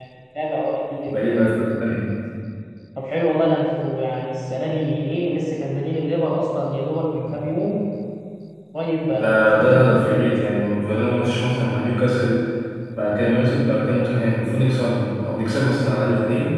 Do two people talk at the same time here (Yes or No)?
Yes